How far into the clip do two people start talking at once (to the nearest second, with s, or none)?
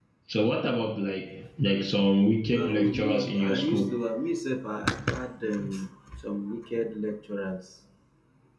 3 s